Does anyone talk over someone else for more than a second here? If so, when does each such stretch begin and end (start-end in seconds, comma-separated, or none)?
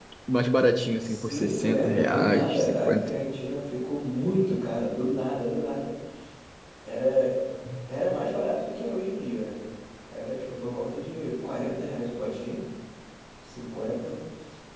1.0-3.1